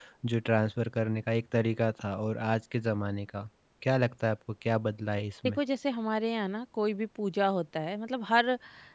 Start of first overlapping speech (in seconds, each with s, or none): none